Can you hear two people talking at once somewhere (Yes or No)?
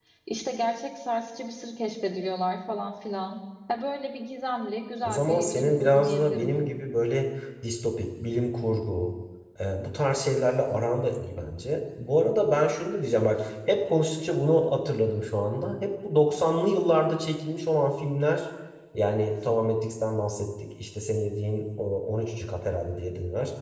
Yes